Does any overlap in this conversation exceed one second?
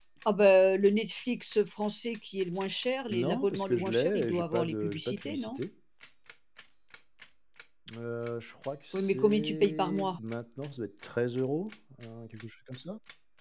Yes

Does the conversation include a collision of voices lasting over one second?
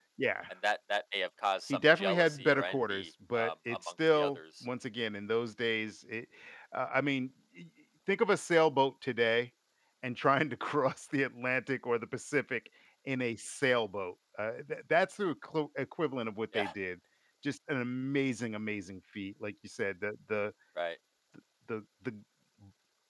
Yes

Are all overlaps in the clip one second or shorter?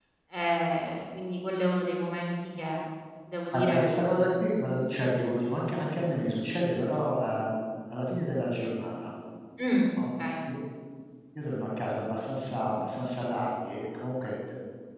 Yes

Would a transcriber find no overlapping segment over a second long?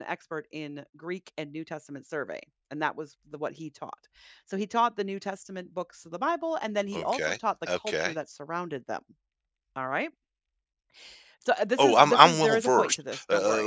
No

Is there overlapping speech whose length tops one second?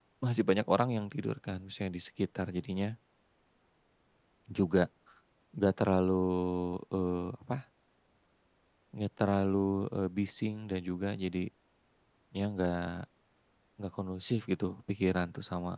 No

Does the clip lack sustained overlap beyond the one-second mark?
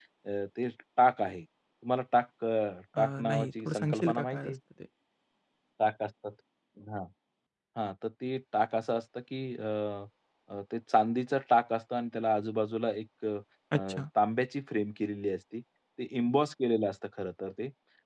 No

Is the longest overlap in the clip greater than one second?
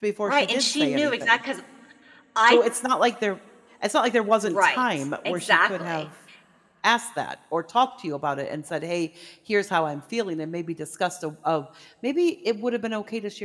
Yes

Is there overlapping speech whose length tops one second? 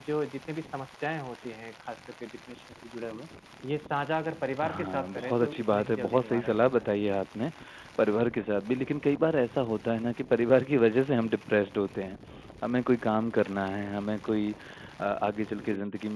Yes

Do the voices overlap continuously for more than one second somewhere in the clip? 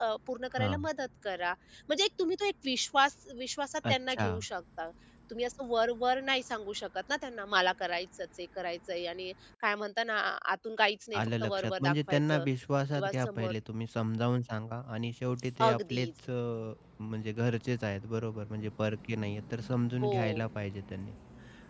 Yes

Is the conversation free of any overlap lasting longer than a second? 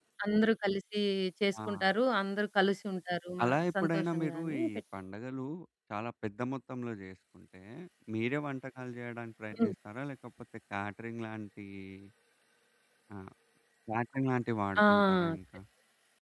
No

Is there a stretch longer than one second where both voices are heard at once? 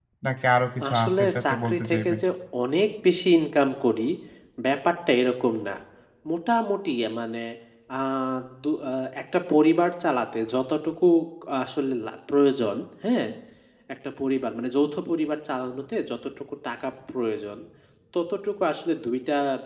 Yes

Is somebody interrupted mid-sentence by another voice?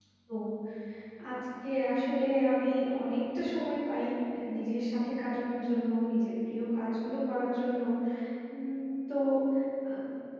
No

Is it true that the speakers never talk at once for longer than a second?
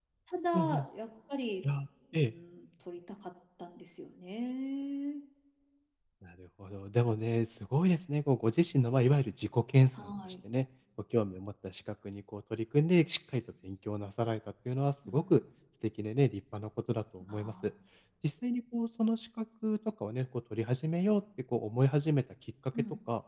Yes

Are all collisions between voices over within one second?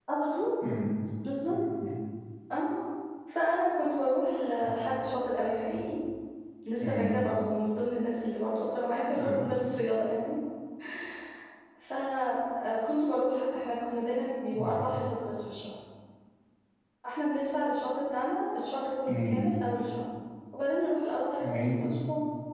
Yes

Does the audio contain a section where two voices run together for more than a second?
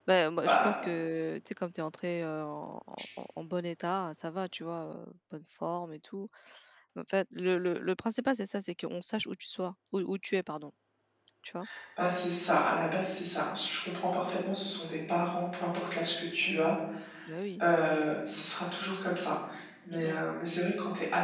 No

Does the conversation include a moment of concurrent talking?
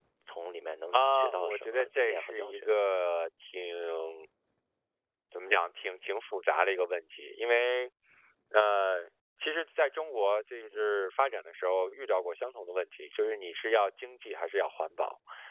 Yes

